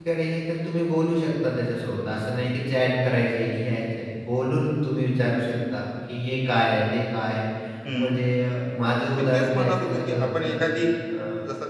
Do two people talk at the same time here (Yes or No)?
Yes